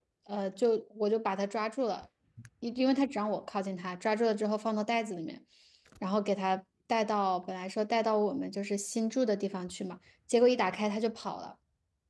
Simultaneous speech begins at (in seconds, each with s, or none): none